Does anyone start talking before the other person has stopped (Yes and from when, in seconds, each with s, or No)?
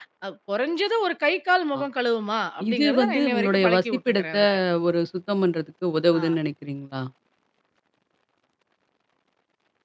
Yes, from 2.7 s